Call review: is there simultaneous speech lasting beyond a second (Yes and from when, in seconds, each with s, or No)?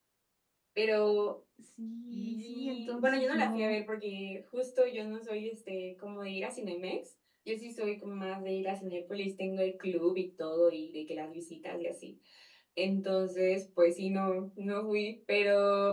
Yes, from 2.1 s